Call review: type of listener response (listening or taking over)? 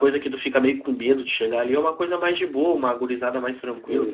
taking over